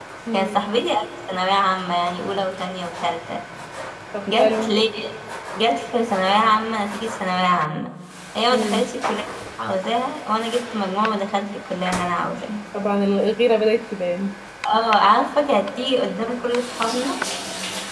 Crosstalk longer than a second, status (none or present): none